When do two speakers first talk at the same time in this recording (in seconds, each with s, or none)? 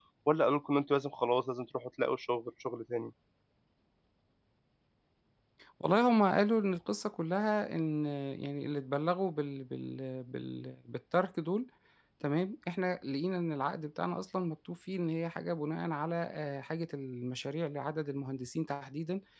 none